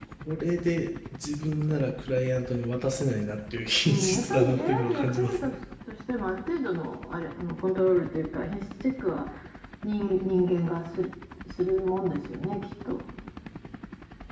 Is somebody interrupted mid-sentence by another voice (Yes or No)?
Yes